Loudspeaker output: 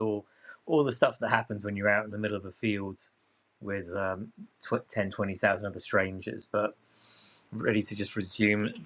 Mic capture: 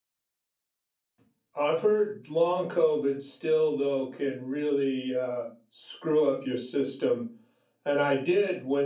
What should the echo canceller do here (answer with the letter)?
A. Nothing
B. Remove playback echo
A